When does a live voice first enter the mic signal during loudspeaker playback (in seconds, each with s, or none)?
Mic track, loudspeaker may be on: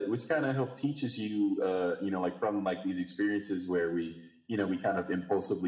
none